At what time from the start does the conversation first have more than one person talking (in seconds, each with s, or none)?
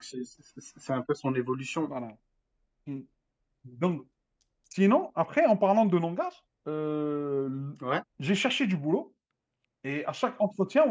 none